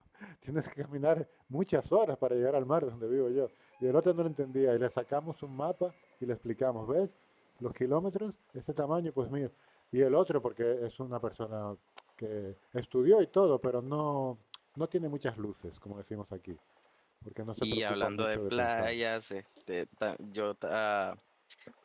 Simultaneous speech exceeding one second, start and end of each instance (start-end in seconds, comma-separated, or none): 17.6-18.9